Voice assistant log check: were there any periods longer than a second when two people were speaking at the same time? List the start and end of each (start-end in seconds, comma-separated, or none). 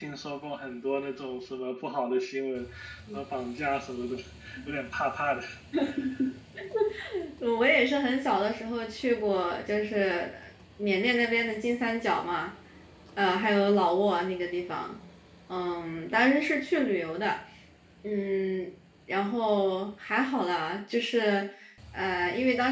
none